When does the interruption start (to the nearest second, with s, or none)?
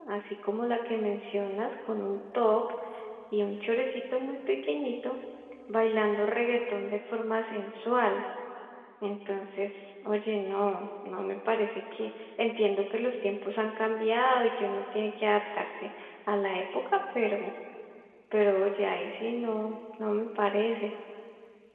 none